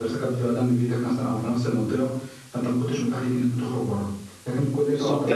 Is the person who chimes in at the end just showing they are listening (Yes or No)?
No